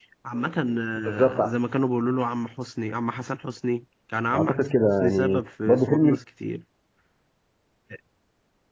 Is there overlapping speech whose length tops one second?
Yes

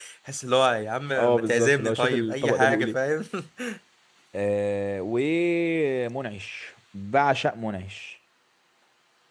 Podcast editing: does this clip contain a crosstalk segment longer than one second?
Yes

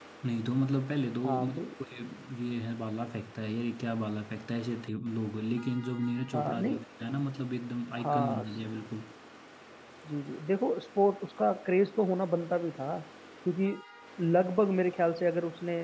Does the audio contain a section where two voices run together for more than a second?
No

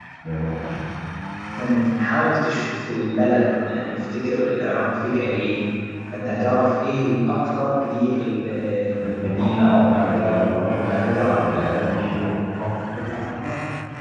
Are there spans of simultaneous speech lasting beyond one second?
Yes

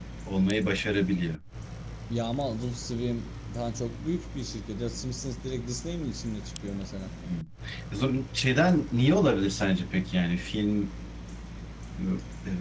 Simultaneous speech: No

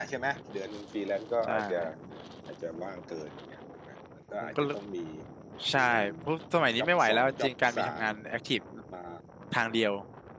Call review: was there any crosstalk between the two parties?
Yes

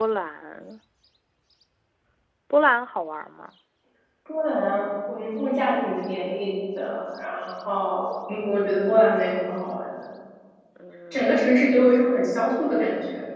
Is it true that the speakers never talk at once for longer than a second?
Yes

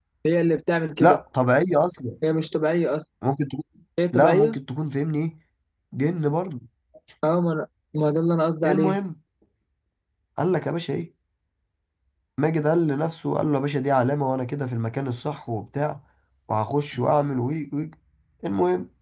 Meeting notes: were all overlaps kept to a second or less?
Yes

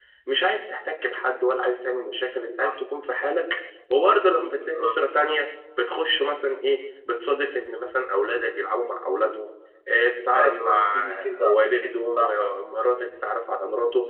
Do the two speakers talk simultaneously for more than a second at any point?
Yes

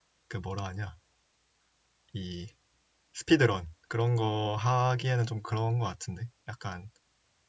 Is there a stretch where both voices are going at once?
No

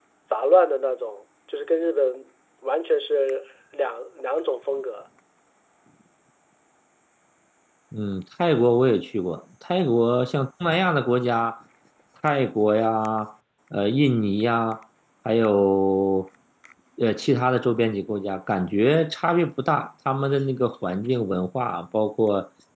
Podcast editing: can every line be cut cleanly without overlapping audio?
Yes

